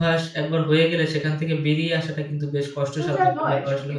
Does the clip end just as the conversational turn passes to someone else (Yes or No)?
Yes